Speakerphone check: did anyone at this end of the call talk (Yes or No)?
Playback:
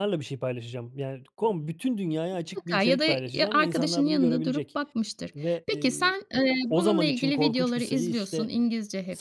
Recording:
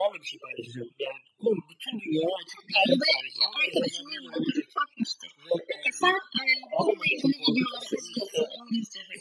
No